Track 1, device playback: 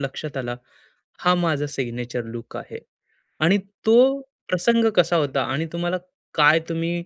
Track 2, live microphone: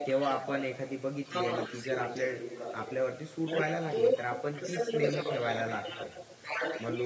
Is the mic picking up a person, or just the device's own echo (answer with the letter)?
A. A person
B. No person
A